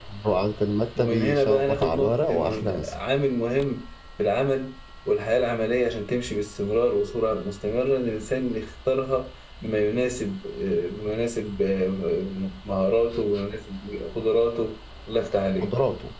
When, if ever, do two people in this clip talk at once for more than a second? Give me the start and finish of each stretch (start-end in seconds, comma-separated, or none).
1.0-2.9